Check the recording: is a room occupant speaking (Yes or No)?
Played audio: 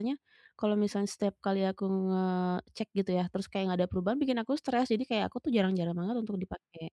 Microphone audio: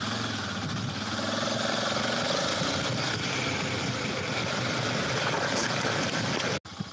No